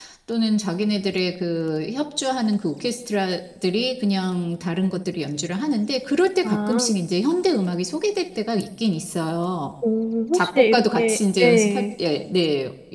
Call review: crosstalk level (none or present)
present